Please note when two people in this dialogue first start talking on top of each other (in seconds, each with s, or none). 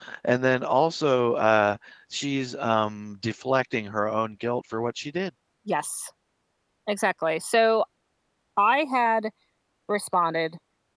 none